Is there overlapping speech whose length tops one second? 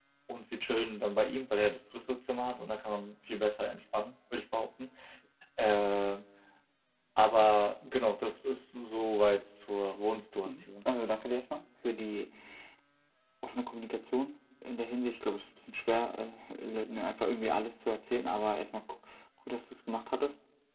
No

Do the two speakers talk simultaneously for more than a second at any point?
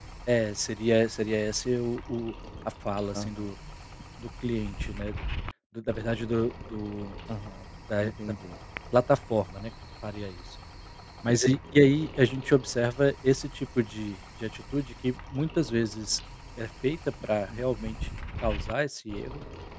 No

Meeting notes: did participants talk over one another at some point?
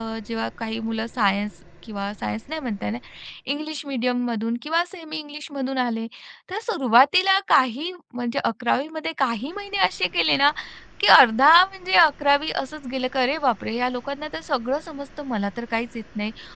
No

